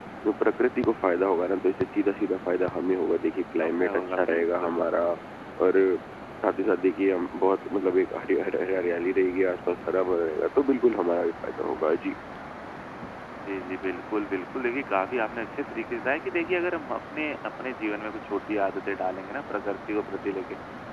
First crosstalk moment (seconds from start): 3.6 s

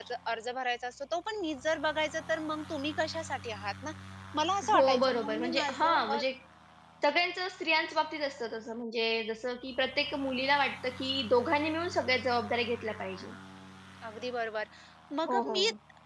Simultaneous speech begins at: 4.7 s

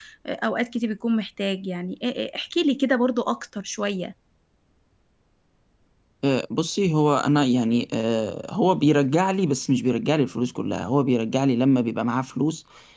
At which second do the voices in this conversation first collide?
none

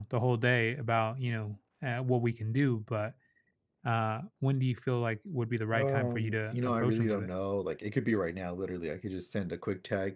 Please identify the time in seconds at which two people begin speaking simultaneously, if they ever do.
5.7 s

